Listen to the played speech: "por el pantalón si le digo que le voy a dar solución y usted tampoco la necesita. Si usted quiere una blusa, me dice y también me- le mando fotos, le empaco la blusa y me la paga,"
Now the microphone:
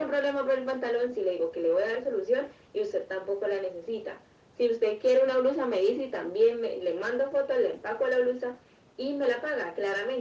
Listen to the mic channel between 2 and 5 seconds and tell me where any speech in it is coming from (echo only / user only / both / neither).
echo only